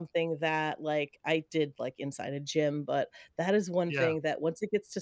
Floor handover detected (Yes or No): No